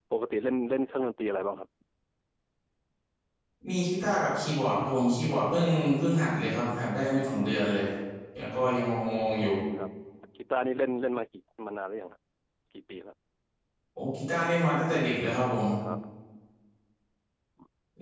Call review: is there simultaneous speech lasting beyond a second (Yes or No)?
No